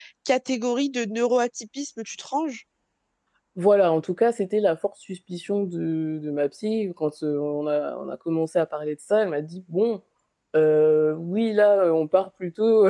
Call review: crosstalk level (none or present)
none